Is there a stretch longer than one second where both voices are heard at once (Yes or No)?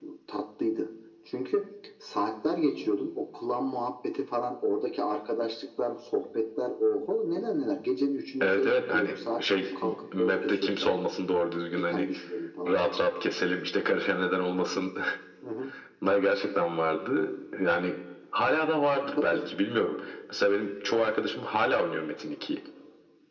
Yes